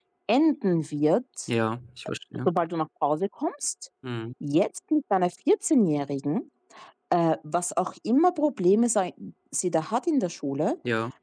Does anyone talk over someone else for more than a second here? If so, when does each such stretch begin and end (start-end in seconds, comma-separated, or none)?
none